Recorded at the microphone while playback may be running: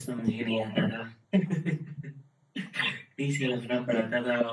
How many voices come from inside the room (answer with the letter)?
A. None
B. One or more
A